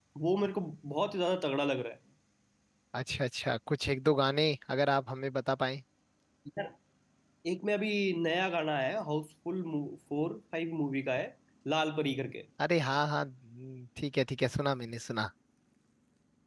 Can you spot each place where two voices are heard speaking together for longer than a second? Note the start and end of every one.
none

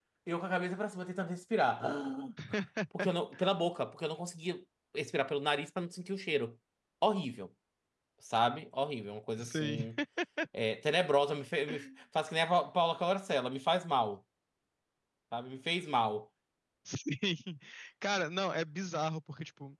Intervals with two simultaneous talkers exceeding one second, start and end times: none

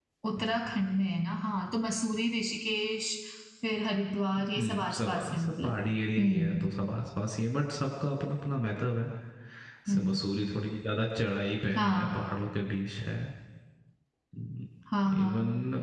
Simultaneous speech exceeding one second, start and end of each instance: 4.5-5.8

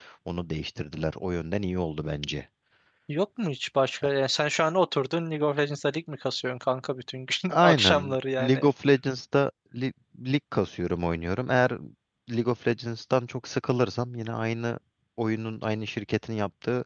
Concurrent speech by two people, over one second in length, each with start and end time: 7.5-8.7

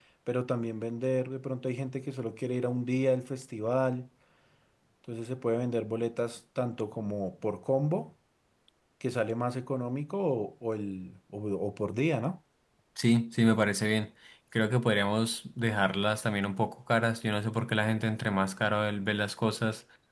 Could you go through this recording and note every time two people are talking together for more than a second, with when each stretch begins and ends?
none

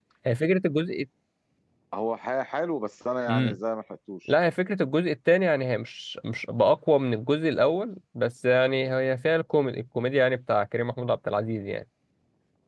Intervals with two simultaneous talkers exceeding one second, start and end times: none

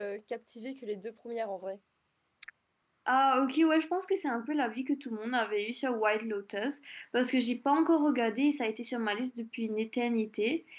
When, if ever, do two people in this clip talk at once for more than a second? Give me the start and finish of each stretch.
none

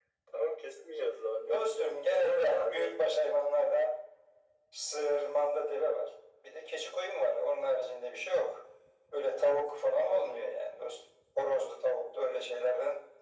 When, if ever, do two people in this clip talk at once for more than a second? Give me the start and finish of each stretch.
1.5-2.9

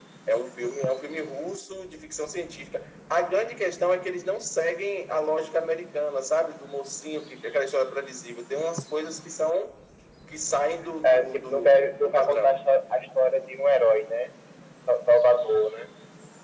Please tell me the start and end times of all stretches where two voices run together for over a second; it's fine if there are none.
11.0-12.6

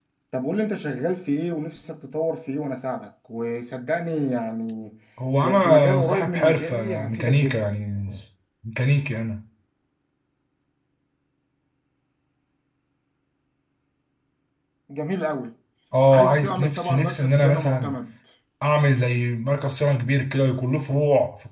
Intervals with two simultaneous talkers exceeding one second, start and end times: 5.4-7.7, 16.1-17.9

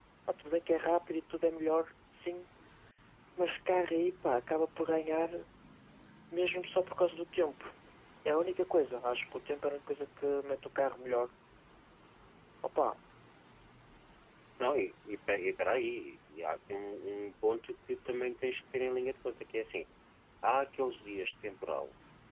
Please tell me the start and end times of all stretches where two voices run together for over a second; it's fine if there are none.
none

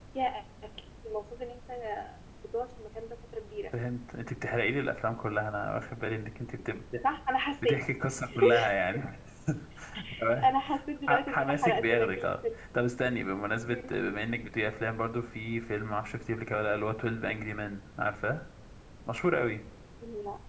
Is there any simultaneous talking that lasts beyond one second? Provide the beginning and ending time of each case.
11.1-12.3

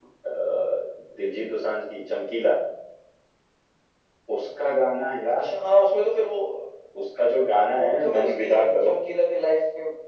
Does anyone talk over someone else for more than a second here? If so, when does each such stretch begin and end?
7.7-8.9

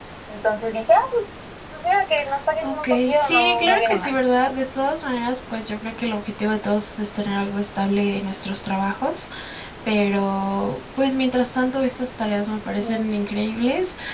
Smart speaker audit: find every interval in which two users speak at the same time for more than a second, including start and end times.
2.6-4.1

